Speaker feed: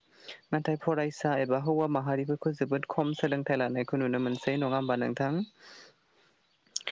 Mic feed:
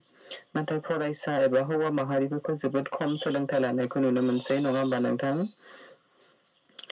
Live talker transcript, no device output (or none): none